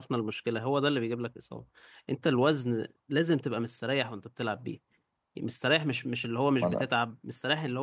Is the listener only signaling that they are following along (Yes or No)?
Yes